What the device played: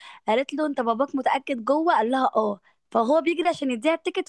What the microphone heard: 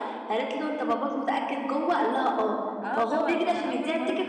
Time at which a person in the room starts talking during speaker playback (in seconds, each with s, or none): 2.8 s